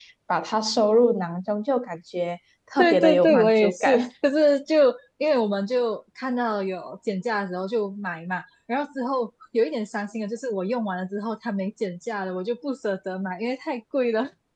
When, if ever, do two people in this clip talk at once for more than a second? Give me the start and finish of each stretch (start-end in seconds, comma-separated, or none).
2.8-4.0